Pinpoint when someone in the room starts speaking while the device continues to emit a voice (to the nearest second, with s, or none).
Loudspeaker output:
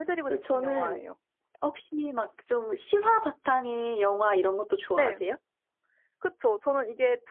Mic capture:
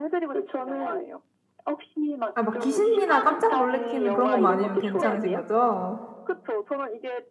2 s